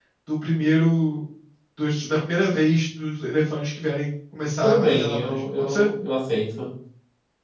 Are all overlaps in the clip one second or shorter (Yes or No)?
No